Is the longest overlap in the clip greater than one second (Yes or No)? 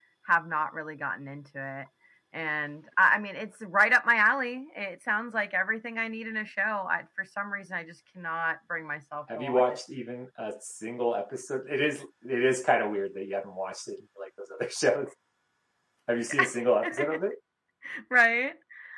No